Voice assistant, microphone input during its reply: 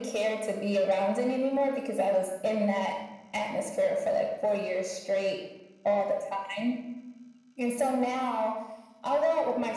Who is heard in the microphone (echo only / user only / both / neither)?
echo only